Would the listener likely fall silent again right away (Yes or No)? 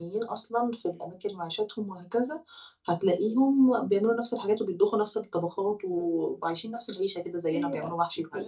No